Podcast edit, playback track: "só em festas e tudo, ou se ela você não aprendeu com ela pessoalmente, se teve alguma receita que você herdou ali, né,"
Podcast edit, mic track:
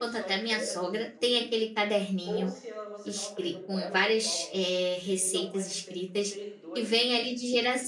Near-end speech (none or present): present